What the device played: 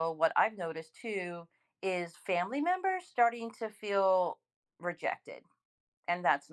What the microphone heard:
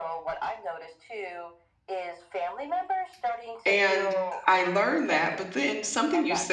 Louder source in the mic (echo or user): user